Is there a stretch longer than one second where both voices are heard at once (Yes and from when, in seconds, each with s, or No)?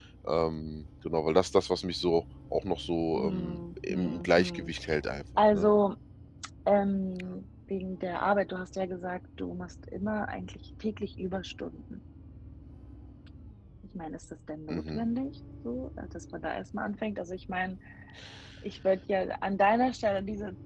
Yes, from 3.1 s